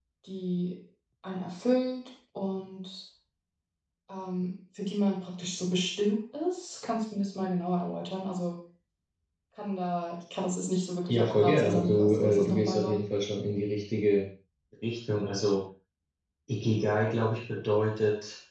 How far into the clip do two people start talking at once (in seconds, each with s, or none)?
11.1 s